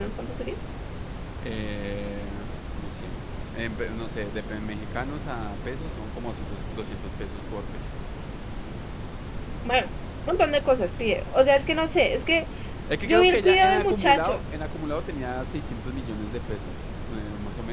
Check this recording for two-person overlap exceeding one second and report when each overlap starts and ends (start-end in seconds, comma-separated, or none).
13.0-14.4